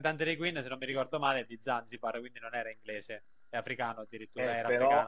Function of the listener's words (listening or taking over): taking over